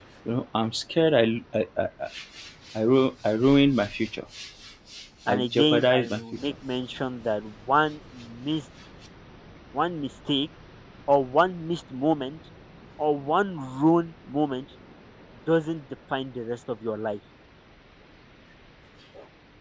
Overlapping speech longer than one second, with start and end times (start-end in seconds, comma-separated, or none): 5.3-6.5